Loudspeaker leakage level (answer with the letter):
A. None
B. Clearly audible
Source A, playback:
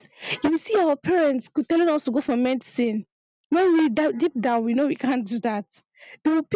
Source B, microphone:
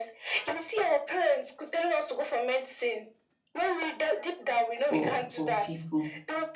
B